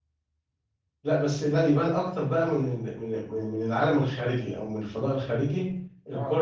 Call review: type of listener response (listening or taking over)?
listening